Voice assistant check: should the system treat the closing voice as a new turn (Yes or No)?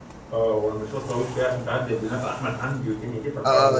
Yes